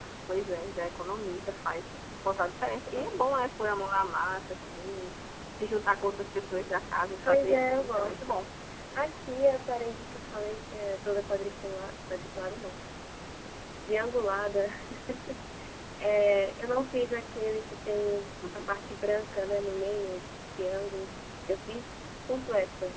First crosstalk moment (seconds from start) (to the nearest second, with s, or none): 7 s